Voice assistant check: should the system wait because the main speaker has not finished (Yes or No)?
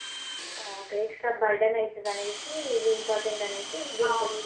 No